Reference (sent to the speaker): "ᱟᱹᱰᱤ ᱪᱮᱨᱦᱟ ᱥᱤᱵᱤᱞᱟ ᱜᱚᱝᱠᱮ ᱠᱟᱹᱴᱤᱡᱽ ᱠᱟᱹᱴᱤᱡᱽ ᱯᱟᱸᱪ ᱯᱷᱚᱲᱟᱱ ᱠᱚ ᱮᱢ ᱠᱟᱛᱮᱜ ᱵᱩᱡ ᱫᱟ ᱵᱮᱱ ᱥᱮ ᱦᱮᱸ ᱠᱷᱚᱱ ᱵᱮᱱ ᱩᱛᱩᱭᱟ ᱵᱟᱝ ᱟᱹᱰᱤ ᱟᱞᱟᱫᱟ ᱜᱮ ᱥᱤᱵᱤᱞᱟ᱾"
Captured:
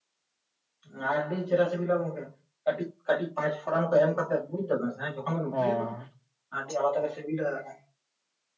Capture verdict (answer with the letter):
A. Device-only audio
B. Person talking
B